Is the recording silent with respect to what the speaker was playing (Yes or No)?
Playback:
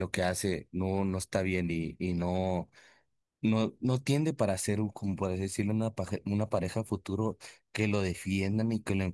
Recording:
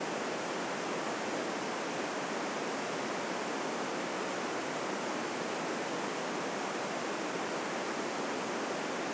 Yes